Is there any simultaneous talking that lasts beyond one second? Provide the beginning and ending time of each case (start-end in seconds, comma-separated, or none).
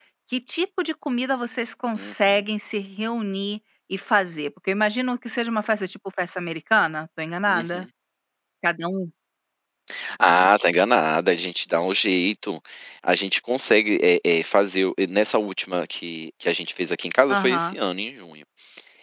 none